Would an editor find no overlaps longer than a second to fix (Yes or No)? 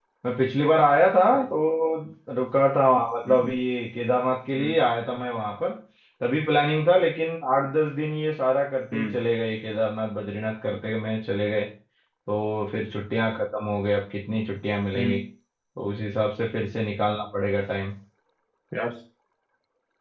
Yes